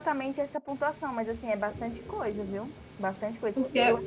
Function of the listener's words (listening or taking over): listening